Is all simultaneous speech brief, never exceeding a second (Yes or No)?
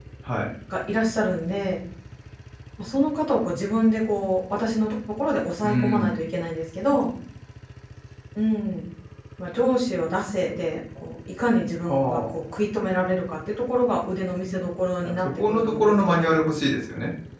No